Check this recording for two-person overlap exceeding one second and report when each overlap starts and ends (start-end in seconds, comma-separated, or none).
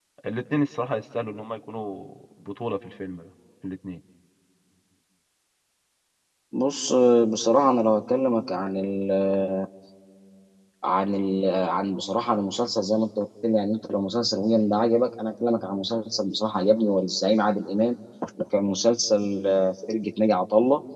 none